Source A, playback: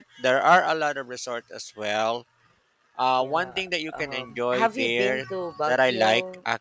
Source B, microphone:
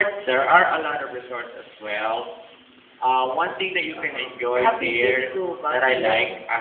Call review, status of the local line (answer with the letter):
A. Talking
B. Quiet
B